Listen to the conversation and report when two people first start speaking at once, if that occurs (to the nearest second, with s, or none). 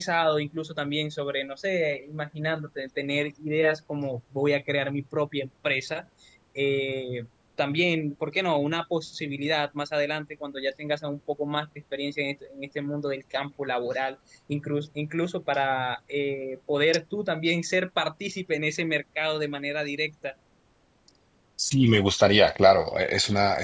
none